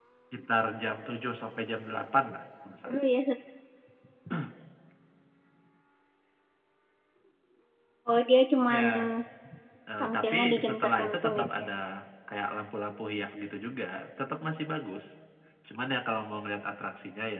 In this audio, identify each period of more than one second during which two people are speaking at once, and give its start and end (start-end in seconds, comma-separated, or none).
10.0-11.7